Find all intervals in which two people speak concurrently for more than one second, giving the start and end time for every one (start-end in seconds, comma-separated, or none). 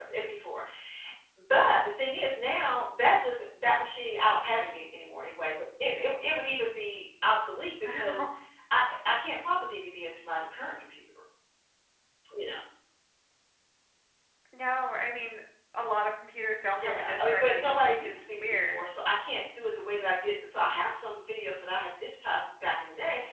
16.8-18.9